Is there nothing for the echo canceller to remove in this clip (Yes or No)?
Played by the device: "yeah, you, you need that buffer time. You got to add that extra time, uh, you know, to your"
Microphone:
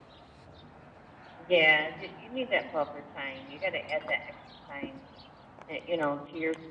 No